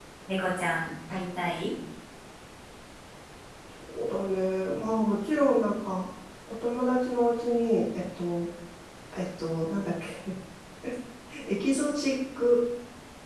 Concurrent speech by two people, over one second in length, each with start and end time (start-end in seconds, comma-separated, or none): none